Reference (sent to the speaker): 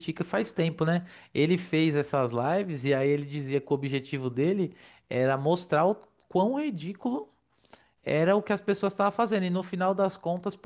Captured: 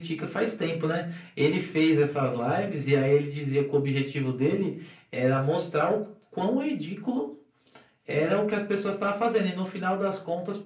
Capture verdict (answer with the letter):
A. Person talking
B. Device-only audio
B